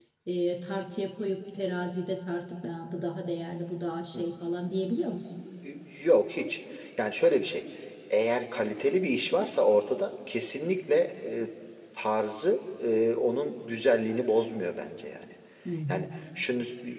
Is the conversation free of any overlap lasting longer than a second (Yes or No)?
Yes